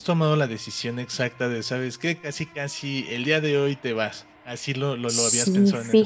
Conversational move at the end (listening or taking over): taking over